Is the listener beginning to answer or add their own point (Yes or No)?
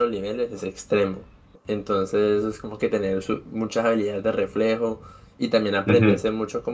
No